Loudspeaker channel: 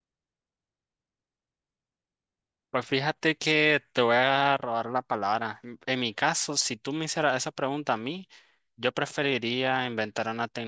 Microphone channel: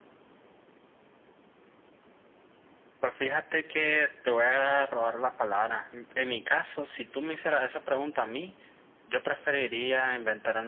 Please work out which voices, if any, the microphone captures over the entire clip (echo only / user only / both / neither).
echo only